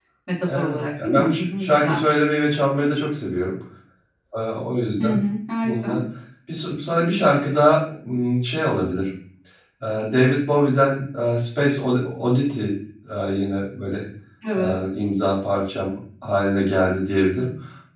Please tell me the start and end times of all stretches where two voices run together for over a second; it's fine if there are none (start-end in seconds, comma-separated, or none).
0.5-2.0